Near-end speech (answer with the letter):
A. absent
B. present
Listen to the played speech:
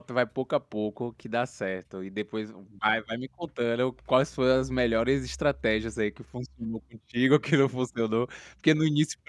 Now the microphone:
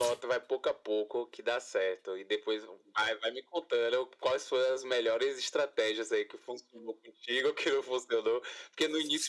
A